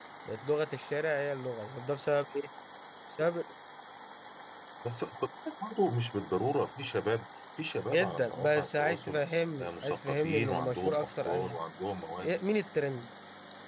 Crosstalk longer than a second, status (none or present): present